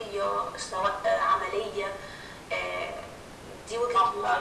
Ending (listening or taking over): taking over